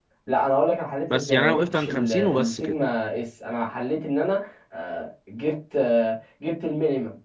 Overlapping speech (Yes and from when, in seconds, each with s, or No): Yes, from 1.1 s